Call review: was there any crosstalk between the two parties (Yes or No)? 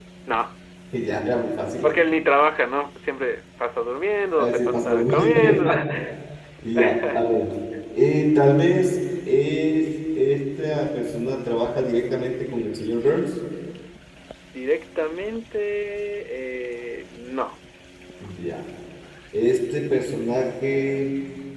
Yes